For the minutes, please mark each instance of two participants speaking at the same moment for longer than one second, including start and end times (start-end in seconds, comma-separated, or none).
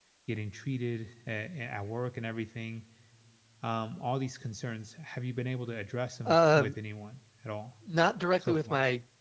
none